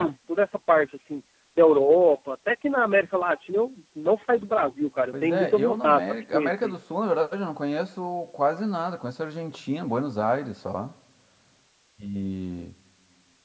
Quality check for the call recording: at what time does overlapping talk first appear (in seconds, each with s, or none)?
5.1 s